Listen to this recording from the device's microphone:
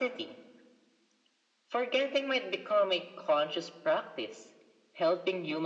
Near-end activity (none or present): none